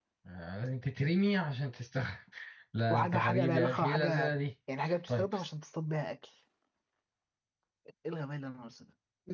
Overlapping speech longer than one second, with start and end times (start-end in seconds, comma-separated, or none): 2.9-4.3